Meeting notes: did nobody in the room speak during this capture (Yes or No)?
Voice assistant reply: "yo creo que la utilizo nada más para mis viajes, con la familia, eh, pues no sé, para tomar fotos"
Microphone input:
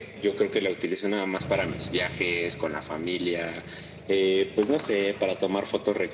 Yes